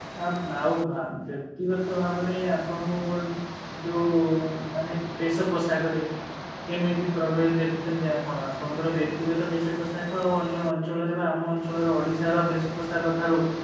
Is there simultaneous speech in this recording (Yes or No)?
No